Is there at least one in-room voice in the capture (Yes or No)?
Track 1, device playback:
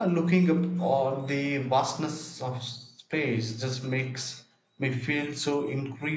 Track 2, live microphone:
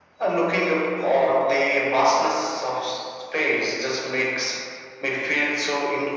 No